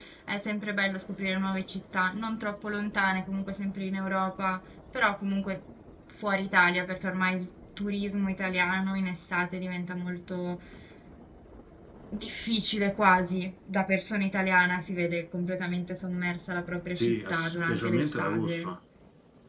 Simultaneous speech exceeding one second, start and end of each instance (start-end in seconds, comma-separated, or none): 17.0-18.7